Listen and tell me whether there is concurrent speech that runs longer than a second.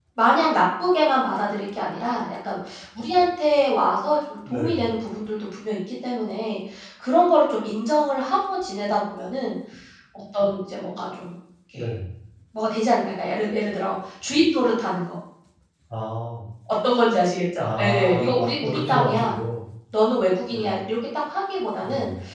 Yes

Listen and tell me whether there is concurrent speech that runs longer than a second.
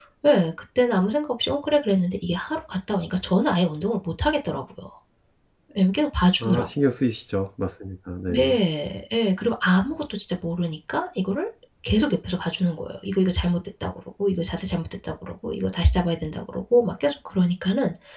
No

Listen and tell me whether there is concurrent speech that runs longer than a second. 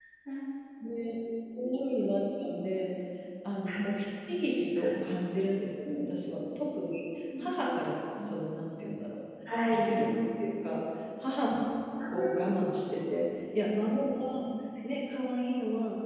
No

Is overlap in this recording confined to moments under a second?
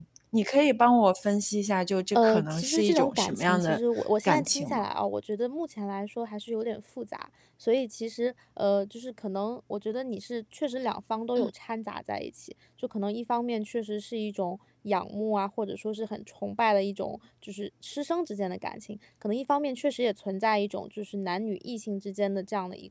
No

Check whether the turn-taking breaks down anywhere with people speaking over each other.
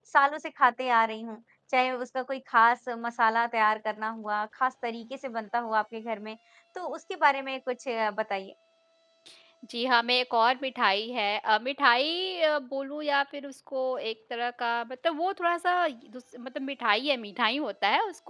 No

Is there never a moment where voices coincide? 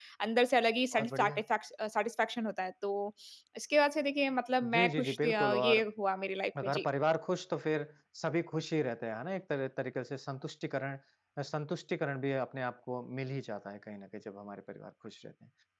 No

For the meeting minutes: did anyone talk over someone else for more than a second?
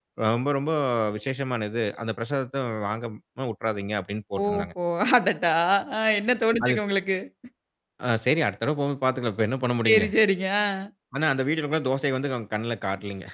No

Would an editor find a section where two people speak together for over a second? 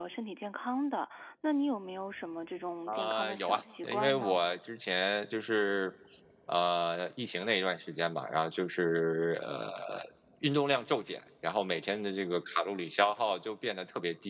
Yes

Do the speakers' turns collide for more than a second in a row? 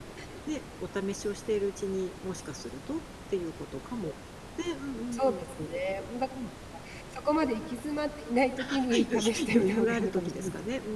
Yes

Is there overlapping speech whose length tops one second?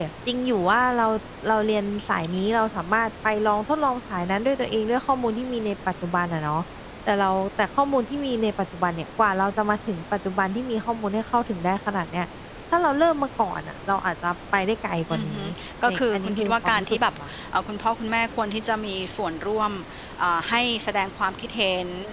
Yes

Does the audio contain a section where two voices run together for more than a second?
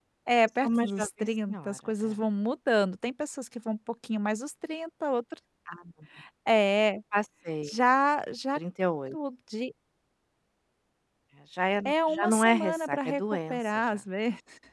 Yes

